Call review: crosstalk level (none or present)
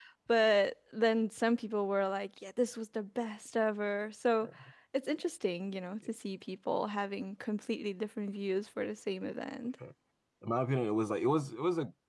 none